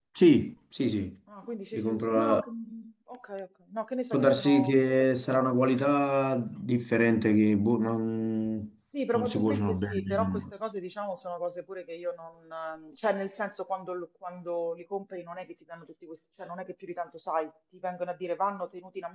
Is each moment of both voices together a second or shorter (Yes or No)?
No